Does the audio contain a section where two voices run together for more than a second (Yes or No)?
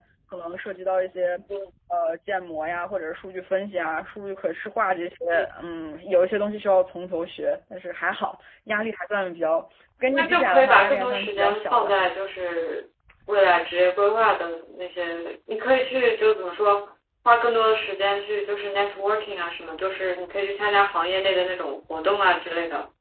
Yes